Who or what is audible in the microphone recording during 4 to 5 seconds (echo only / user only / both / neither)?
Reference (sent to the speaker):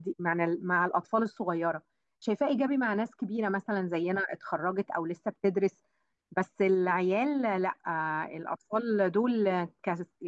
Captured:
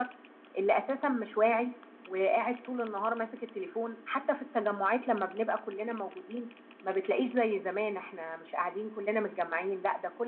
user only